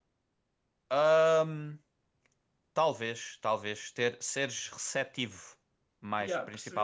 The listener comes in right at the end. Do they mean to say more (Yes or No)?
Yes